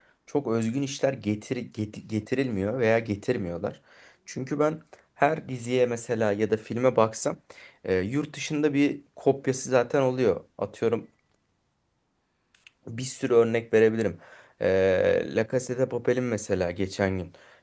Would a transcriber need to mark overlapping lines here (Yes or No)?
No